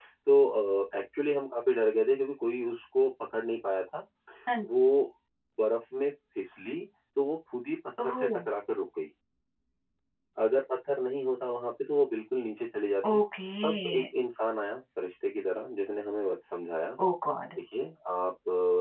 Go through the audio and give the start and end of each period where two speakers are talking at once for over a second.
none

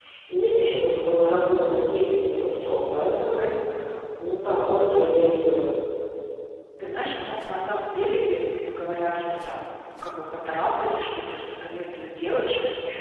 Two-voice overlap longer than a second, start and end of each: none

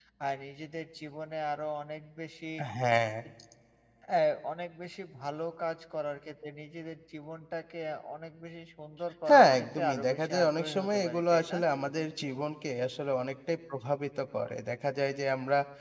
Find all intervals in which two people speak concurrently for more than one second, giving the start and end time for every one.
9.3-11.6

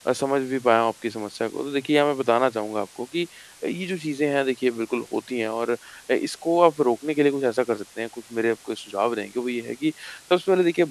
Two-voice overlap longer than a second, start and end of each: none

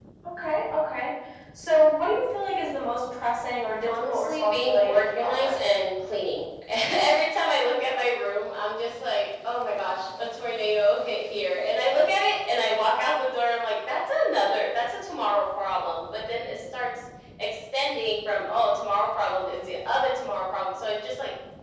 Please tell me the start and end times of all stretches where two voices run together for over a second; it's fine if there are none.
3.9-5.6

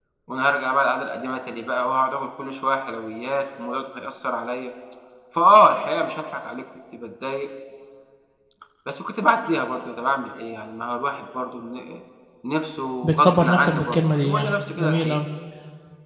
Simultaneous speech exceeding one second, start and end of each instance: 13.0-15.2

